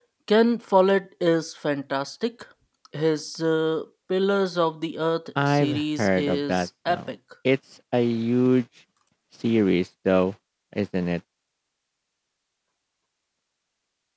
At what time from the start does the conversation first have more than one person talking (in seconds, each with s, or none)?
5.3 s